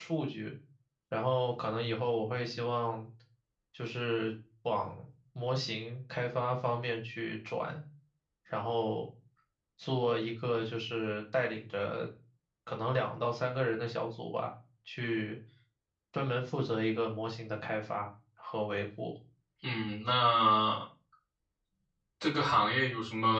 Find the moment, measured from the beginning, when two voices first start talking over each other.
none

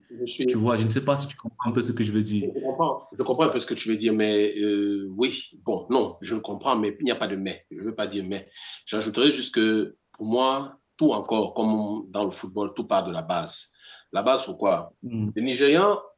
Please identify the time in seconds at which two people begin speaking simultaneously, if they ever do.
none

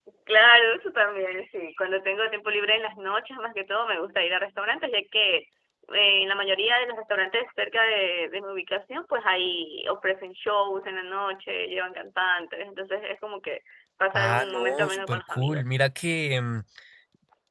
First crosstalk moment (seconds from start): 14.1 s

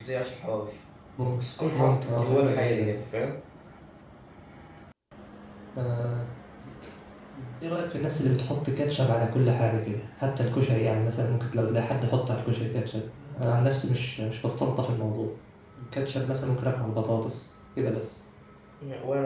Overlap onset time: 1.7 s

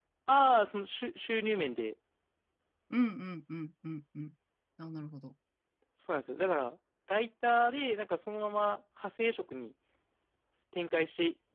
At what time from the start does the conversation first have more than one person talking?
none

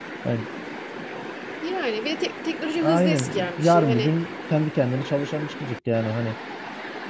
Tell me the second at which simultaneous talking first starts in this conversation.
2.8 s

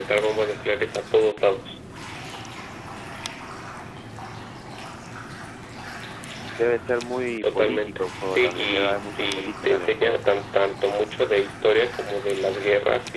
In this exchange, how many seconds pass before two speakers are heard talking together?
7.4 s

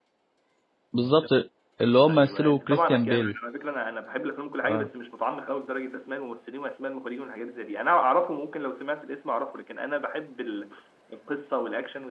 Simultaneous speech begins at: 2.1 s

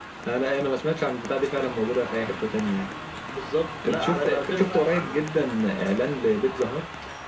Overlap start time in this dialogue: 3.9 s

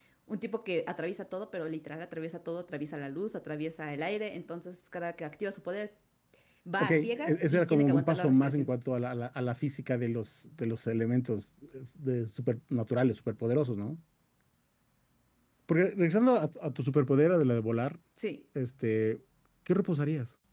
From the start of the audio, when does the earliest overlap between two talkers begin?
6.8 s

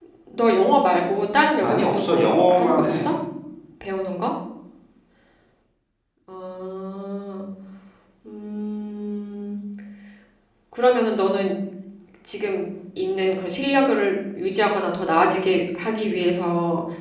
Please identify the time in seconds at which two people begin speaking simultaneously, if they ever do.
1.6 s

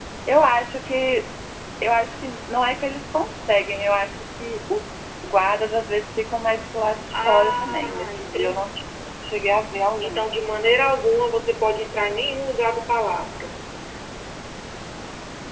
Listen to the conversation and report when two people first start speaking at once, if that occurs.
7.1 s

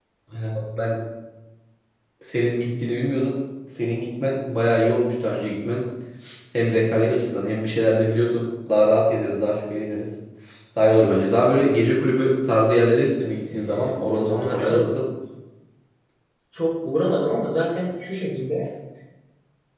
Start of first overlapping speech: 13.5 s

